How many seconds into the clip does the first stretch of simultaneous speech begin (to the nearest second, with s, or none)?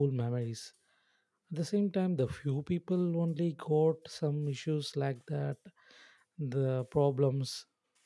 none